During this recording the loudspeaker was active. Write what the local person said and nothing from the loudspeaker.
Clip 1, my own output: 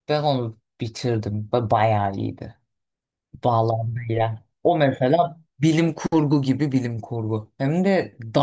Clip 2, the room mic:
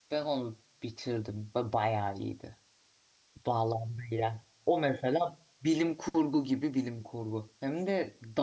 none

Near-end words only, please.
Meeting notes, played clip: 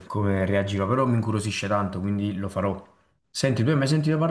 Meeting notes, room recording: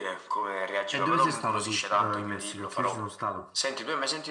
E dove sei stata tu, eh, in Messico? Che io ci sono stato.

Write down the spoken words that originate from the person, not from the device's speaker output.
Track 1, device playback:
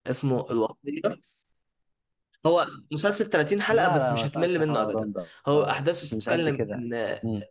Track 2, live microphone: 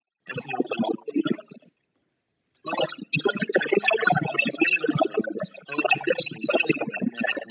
none

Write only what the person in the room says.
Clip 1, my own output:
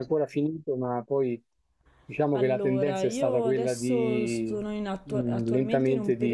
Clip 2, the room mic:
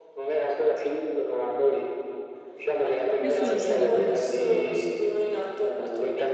Io sono a Zurigo in questo momento.

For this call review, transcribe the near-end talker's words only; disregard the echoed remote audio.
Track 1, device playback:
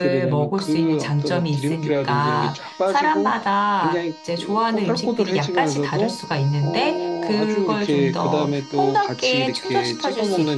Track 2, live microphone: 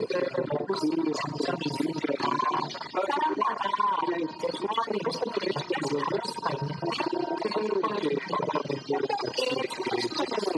none

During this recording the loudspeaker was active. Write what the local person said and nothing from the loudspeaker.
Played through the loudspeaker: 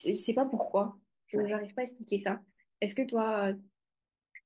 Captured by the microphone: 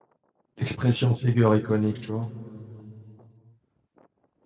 l'expression figure iconique, tu vois.

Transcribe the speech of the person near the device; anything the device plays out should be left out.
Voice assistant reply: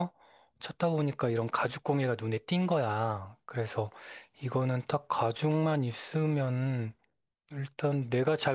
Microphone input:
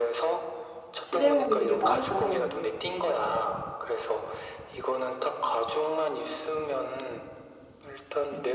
실행력이 되게 빠르다.

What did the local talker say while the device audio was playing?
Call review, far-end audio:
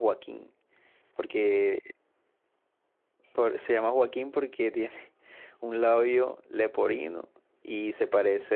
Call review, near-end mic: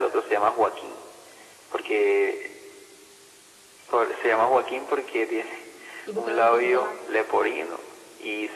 ¿Y por qué no le pusiste vaca?

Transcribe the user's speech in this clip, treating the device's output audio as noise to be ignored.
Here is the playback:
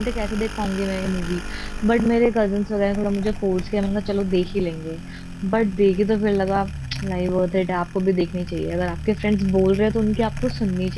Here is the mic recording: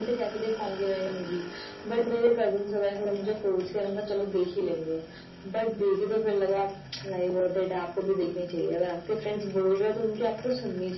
none

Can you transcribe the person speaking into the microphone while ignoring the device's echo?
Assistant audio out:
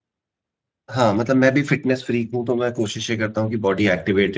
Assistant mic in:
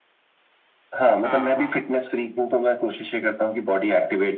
हाँ हाँ

